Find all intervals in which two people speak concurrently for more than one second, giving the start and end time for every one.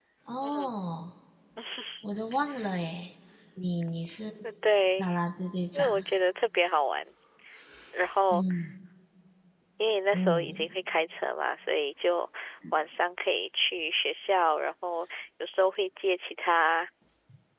none

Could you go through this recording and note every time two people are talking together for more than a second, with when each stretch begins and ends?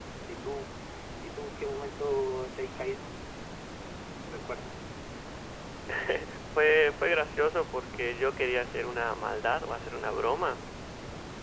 none

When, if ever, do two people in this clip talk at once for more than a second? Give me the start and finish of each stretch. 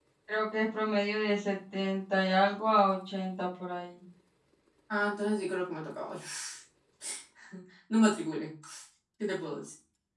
none

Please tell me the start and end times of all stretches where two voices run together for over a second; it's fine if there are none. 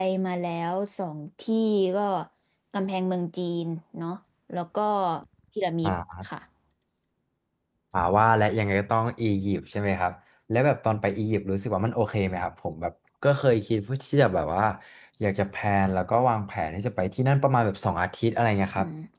none

